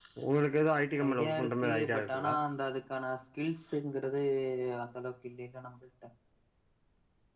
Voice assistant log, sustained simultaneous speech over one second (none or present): present